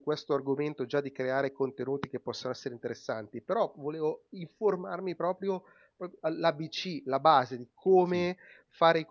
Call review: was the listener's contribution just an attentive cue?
Yes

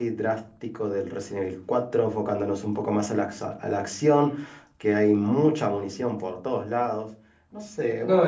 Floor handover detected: Yes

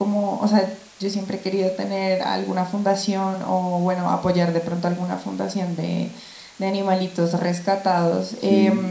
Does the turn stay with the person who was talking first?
Yes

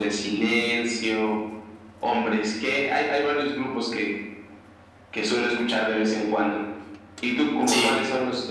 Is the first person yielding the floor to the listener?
No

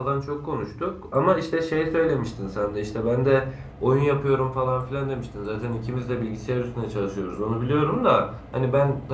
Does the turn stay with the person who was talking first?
Yes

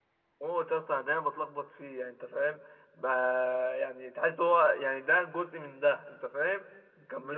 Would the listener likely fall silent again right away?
No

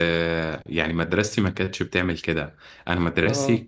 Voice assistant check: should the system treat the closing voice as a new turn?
No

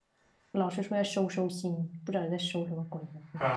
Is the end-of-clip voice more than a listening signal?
Yes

